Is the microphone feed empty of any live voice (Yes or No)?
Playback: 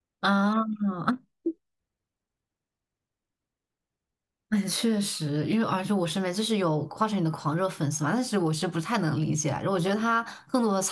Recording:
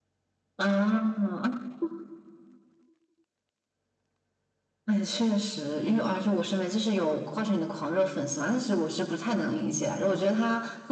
Yes